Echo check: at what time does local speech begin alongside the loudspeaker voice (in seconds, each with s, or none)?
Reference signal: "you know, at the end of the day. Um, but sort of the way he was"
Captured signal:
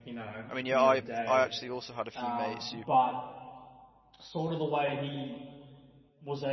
0.5 s